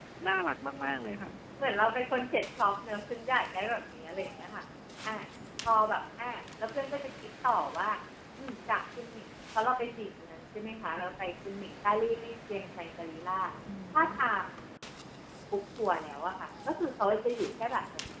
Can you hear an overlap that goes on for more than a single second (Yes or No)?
No